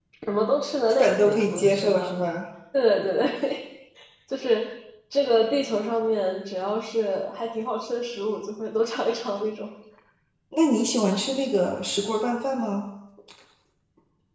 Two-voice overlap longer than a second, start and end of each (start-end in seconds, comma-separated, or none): 0.9-2.1